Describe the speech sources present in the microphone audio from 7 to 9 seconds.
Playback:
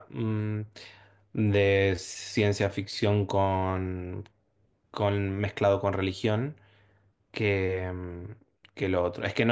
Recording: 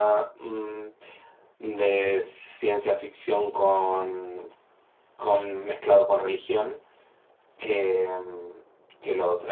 echo only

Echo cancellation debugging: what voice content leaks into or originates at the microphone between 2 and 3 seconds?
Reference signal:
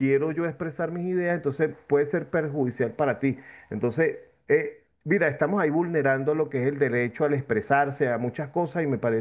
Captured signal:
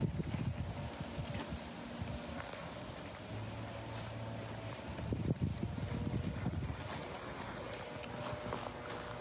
neither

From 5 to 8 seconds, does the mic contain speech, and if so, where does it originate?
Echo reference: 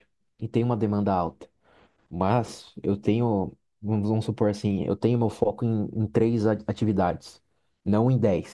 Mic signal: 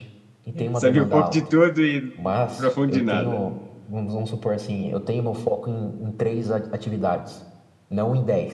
echo only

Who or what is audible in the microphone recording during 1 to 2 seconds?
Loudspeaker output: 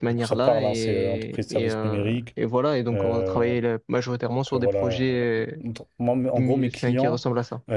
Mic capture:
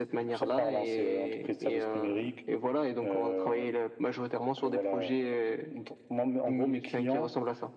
echo only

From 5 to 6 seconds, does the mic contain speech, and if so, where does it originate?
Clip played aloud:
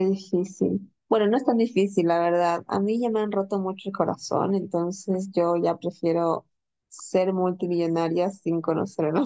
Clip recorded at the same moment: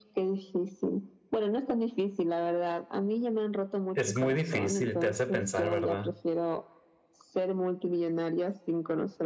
both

